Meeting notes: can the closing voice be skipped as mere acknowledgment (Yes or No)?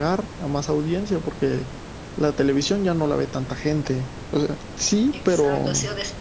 No